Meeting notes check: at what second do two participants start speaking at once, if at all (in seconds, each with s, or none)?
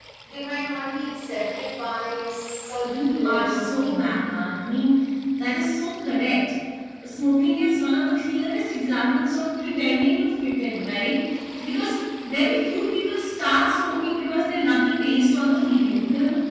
2.8 s